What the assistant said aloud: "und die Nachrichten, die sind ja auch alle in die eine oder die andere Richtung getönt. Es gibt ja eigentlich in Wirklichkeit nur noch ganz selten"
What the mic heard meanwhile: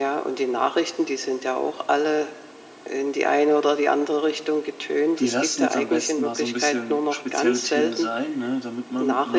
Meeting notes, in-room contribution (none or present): present